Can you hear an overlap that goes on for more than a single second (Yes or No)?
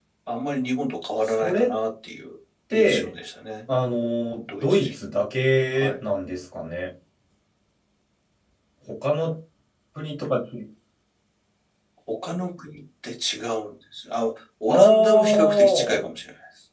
Yes